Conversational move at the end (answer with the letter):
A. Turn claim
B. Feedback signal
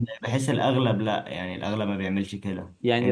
A